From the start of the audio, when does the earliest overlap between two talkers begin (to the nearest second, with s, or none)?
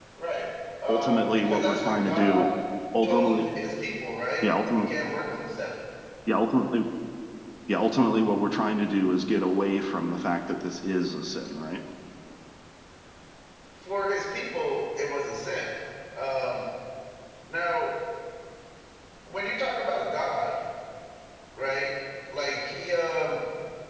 1 s